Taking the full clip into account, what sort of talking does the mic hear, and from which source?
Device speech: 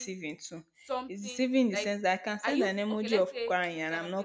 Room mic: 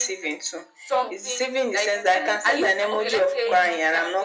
both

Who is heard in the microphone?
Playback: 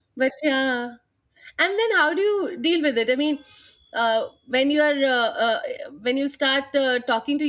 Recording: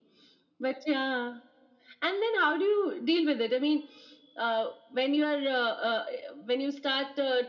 echo only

